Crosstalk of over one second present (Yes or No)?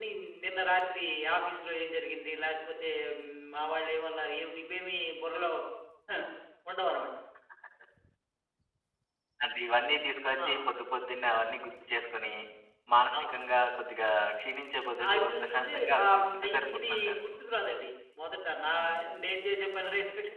Yes